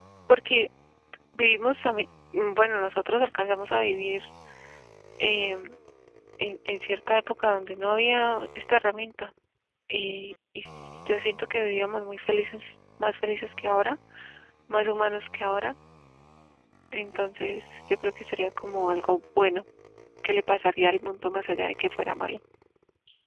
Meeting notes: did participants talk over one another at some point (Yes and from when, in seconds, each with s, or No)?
No